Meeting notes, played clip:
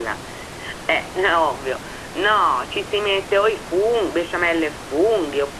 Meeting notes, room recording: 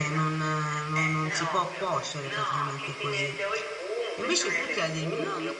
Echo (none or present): present